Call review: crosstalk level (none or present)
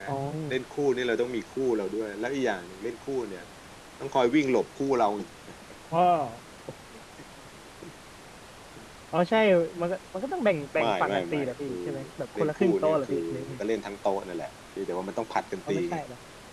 present